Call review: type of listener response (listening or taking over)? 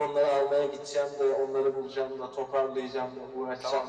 taking over